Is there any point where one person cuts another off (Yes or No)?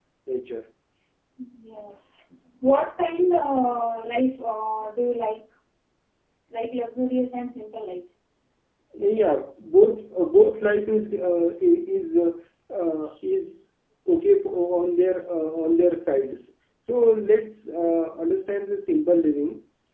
No